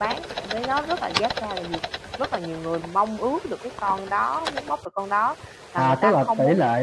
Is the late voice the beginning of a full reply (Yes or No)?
Yes